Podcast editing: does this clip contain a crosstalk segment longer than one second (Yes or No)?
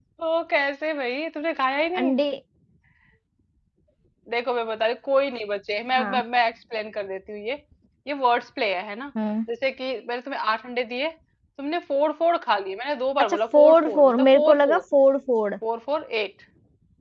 Yes